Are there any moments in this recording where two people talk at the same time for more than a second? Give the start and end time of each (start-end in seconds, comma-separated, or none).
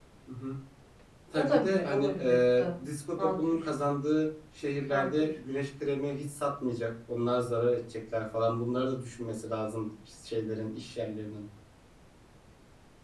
1.4-2.6